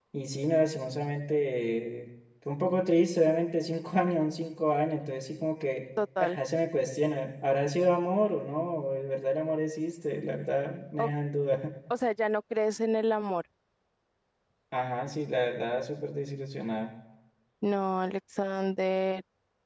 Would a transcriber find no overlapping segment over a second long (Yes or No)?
Yes